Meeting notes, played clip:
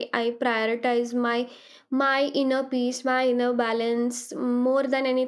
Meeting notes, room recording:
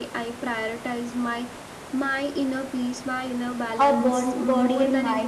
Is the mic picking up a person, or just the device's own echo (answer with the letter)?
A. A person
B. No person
A